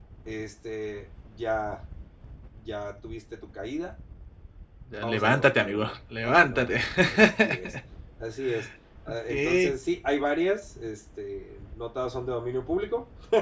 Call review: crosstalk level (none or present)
present